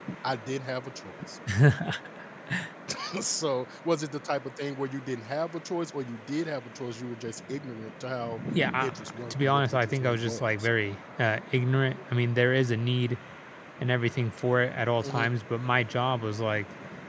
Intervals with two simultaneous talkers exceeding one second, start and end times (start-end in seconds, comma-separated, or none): 9.3-10.7